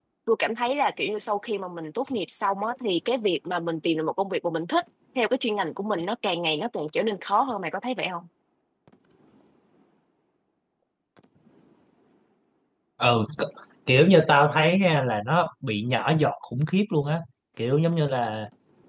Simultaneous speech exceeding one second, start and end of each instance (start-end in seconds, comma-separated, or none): none